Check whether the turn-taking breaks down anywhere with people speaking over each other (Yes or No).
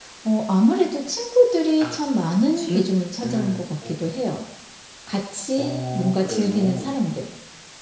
Yes